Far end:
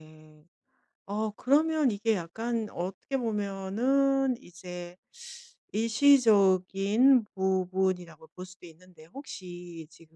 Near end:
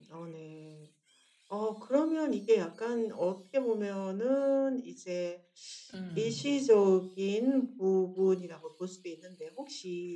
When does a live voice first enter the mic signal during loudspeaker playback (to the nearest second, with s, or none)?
6 s